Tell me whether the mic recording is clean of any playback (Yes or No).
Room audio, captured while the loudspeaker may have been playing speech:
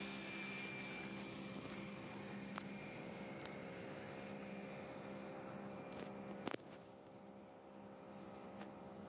Yes